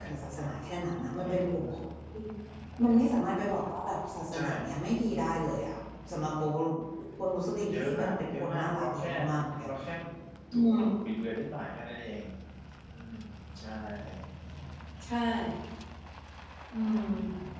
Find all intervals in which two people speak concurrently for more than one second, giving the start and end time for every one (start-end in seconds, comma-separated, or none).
7.7-9.1